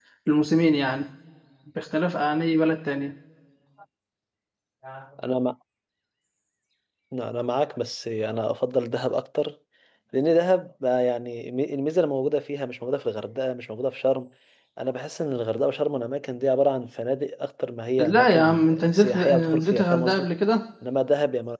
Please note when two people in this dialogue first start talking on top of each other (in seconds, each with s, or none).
18.0 s